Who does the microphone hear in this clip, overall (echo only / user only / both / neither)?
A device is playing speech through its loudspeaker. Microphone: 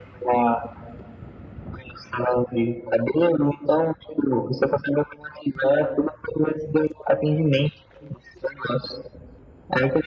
echo only